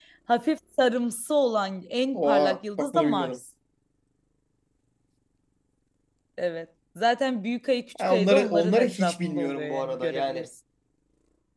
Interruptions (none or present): present